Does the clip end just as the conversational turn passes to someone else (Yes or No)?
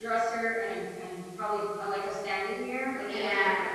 Yes